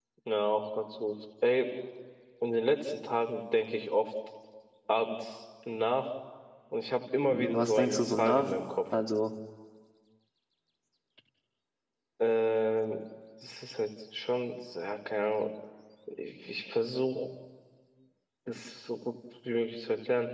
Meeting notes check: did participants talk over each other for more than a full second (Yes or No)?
Yes